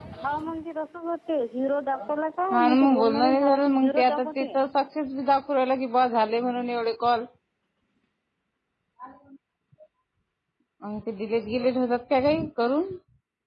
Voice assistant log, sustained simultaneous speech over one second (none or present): present